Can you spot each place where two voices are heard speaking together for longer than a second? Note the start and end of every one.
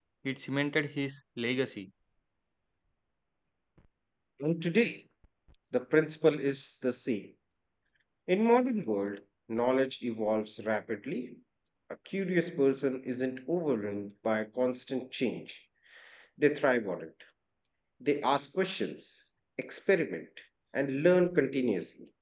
none

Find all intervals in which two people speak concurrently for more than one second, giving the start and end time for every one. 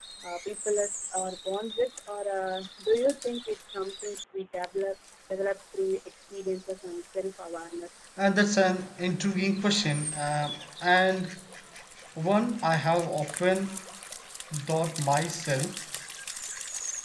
none

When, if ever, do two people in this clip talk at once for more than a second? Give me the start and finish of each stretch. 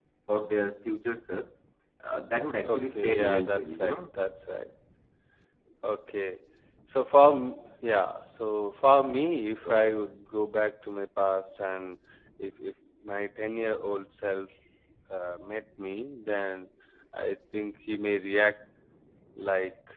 2.6-4.0

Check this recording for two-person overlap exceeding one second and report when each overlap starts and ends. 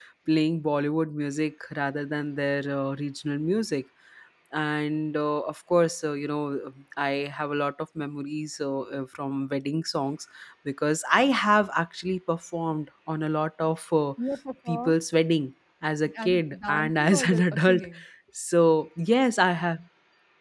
16.2-17.8

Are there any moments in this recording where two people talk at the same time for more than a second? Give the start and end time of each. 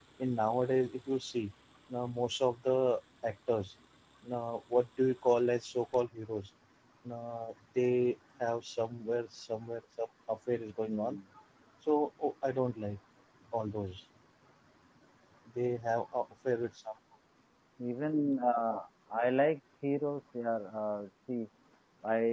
none

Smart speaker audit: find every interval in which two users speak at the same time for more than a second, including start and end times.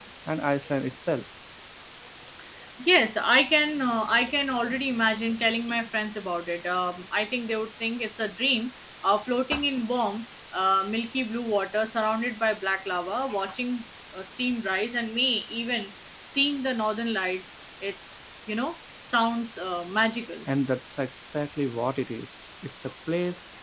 none

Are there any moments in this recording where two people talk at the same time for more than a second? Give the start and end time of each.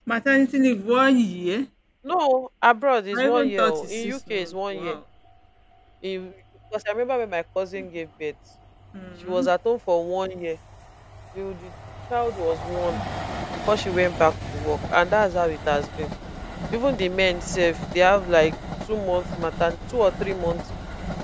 3.1-5.0

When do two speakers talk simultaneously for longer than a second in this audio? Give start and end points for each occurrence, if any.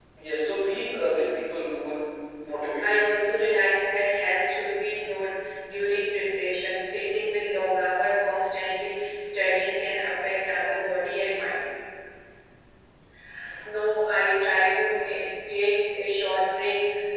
none

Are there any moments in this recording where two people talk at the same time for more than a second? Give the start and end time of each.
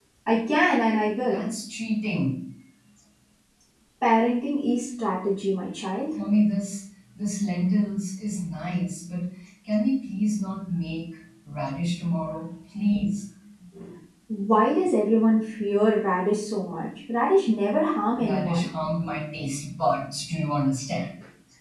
none

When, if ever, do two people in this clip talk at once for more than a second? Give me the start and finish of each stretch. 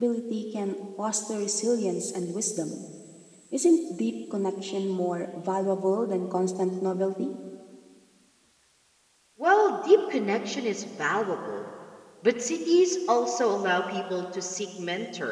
none

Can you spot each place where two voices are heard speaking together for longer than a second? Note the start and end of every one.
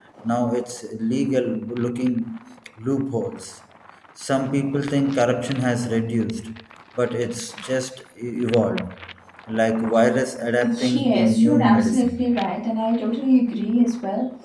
10.6-12.3

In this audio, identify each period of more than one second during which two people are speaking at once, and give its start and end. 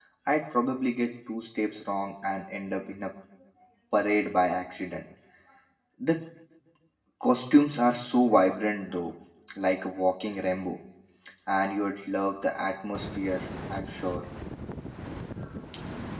none

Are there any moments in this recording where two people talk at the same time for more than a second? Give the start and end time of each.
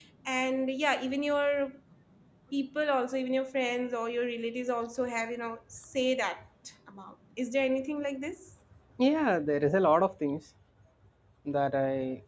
none

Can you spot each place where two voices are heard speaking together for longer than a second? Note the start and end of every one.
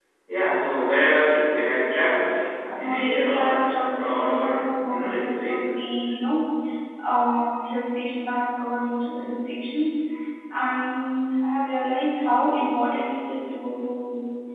2.8-5.8

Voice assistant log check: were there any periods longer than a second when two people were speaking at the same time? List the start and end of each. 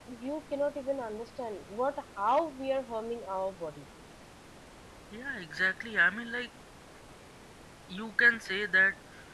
none

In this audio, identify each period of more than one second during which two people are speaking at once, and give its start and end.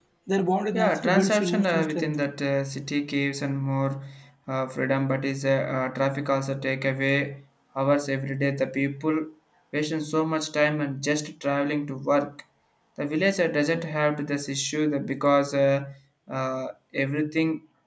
0.7-2.1

